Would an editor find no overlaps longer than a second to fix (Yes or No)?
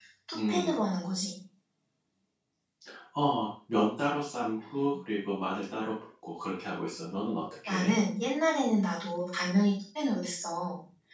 Yes